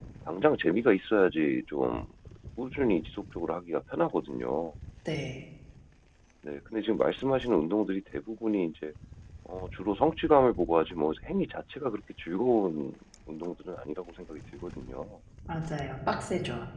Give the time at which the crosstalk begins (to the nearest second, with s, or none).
none